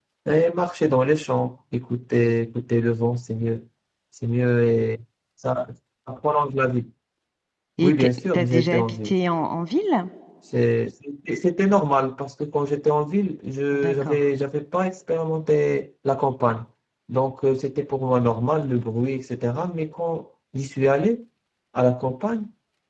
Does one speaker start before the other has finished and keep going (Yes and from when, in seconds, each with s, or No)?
Yes, from 7.8 s